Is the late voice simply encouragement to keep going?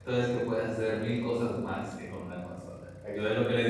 Yes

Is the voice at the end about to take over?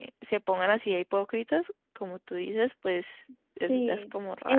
Yes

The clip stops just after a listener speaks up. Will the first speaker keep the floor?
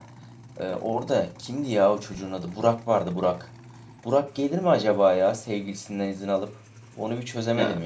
Yes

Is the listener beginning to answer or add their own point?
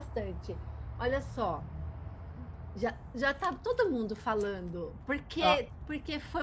No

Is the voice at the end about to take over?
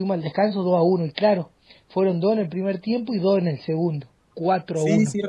Yes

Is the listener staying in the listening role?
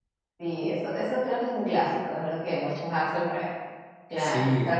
Yes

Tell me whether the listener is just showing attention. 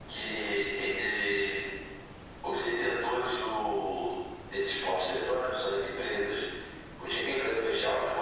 Yes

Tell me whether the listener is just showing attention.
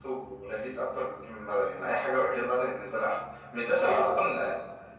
Yes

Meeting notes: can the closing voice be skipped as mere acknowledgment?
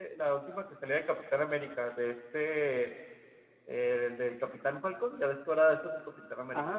No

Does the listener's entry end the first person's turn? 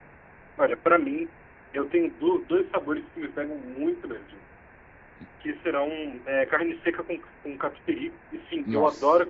No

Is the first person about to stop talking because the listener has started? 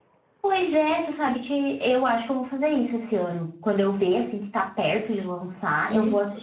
No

